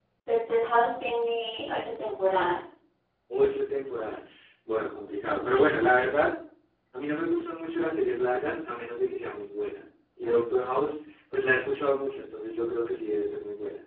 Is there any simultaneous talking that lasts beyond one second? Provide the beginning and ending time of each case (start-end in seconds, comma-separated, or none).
none